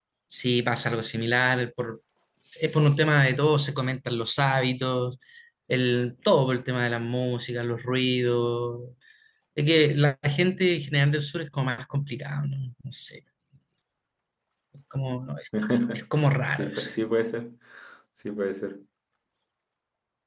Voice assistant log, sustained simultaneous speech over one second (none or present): none